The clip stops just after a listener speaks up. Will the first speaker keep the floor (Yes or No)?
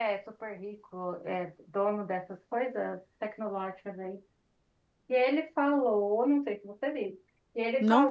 Yes